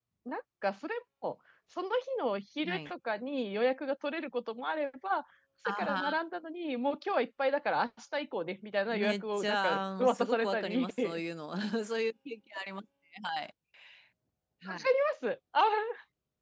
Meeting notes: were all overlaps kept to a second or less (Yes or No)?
No